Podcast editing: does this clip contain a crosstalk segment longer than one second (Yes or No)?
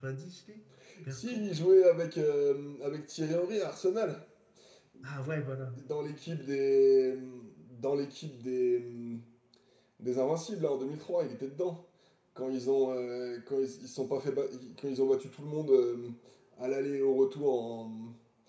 No